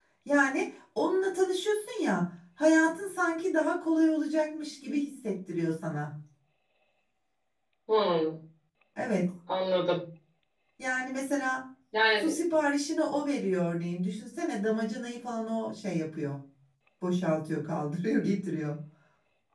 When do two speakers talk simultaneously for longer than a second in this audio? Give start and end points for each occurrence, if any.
none

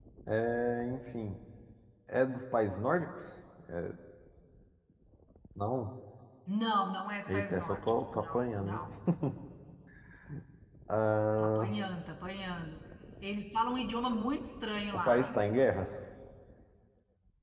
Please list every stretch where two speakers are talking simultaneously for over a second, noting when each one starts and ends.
7.3-8.8

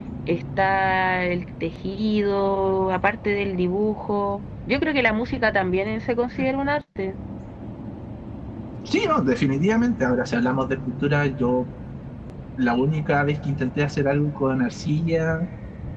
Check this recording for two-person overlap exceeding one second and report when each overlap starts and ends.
none

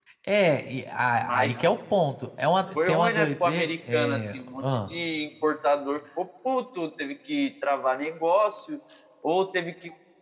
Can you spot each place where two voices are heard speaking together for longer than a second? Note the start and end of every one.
2.8-4.9

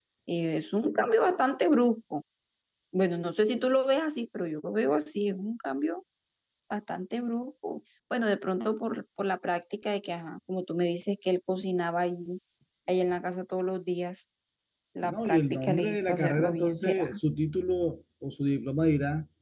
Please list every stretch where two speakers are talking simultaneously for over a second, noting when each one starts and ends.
15.0-17.1

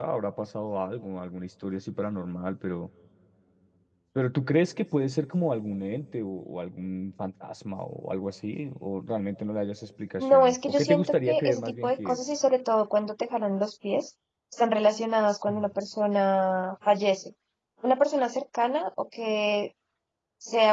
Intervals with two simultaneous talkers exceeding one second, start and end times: 10.2-12.2

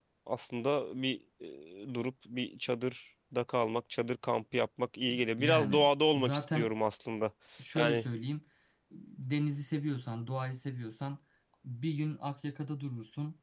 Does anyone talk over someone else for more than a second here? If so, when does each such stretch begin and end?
5.4-6.7

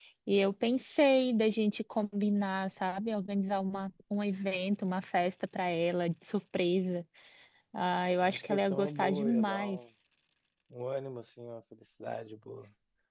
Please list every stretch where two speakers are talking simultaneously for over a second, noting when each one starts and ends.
8.2-9.8

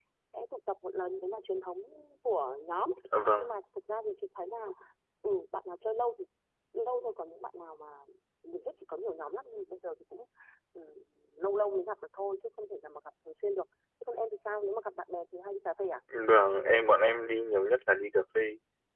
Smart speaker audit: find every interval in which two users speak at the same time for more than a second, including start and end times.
none

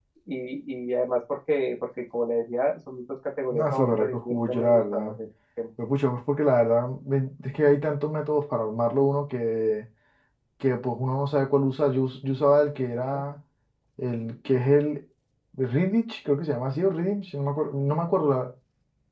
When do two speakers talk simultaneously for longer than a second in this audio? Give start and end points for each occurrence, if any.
3.5-5.2

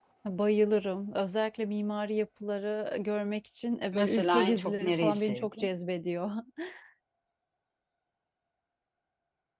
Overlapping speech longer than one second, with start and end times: 3.9-5.7

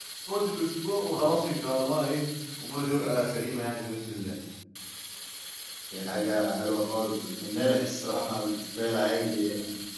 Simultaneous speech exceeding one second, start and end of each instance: none

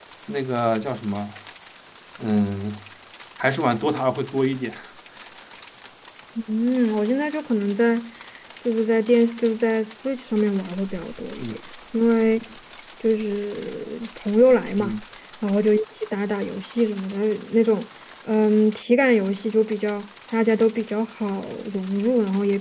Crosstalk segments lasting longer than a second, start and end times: none

